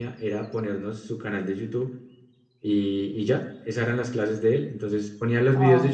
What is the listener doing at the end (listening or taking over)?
listening